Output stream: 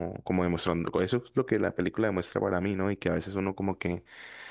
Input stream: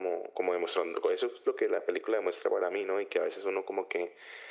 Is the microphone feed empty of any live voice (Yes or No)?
Yes